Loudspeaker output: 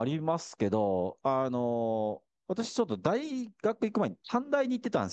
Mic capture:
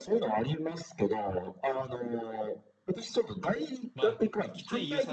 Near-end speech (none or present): present